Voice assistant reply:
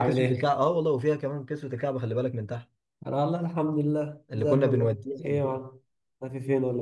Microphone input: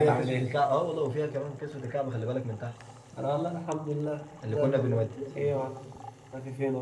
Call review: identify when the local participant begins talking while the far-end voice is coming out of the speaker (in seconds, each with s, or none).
none